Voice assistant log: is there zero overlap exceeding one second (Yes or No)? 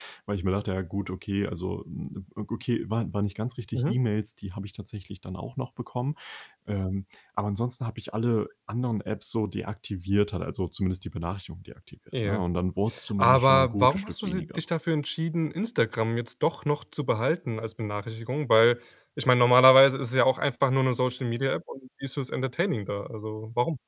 No